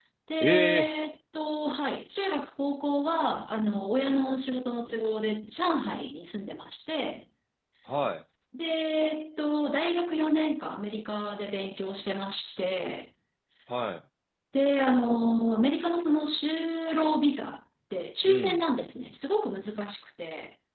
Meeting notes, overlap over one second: none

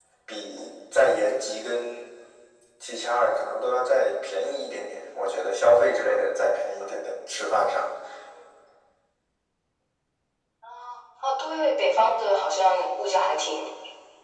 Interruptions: none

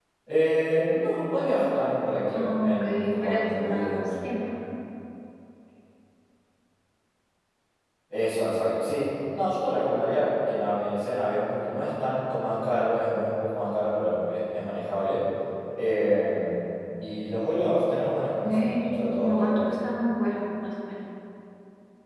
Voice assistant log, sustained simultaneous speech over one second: present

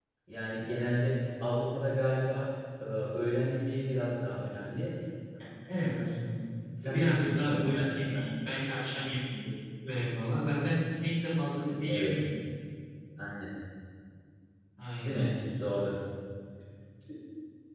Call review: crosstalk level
present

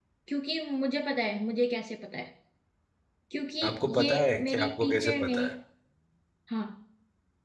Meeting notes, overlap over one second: present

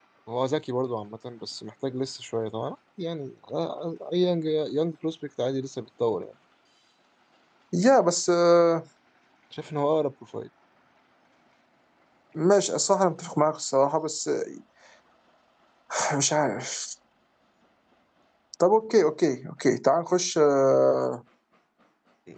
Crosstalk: none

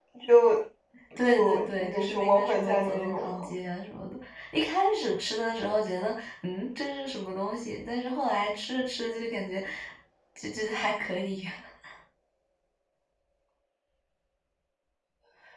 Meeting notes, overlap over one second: present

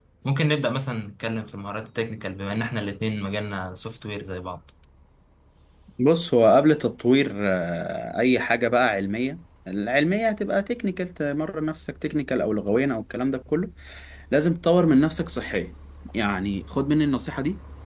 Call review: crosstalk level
none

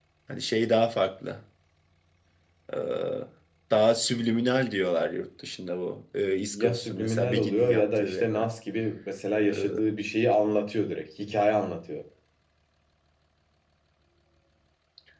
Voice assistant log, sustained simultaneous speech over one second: present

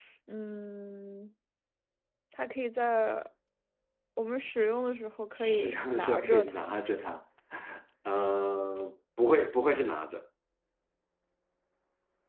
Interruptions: present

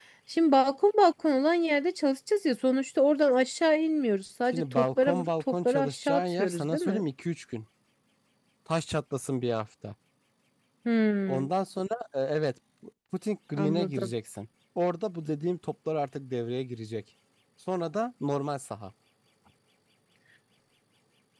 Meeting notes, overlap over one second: present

